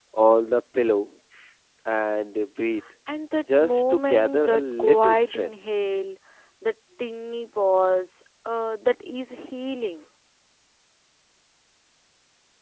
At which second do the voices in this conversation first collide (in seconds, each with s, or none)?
3.6 s